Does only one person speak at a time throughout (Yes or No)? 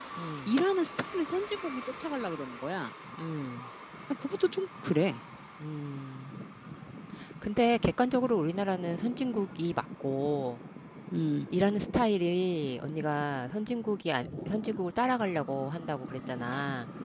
Yes